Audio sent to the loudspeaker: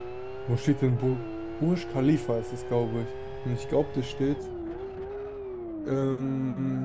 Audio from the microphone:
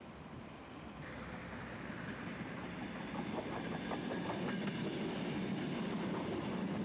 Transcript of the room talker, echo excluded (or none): none